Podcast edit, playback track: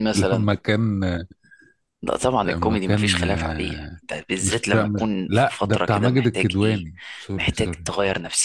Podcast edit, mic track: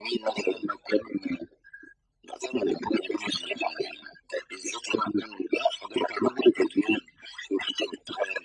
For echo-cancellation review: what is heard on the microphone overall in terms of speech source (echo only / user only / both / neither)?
echo only